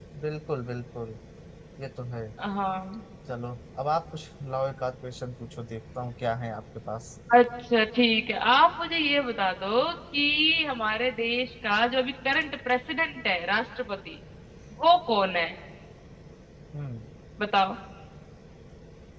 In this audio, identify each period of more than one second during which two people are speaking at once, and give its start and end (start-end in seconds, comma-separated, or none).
none